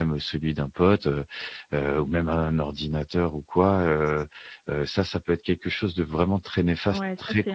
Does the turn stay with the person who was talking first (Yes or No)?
No